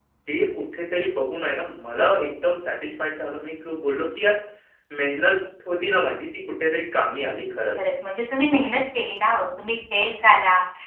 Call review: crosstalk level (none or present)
none